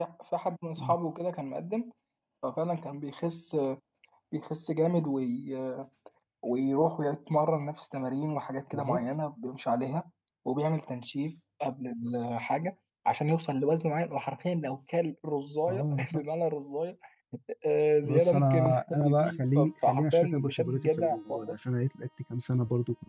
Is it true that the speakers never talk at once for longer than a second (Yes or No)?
No